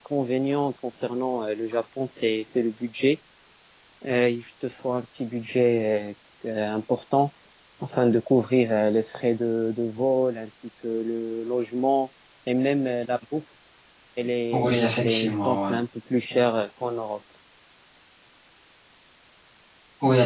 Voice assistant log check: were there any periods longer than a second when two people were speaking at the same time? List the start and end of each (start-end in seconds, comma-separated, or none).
14.5-15.8